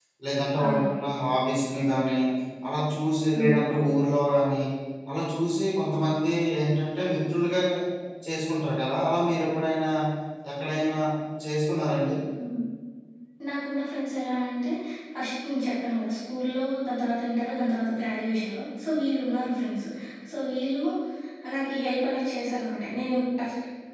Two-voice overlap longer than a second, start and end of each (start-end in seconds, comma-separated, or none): none